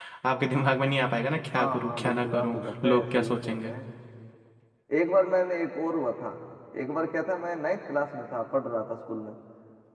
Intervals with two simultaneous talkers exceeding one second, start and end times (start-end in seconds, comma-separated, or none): 1.5-3.7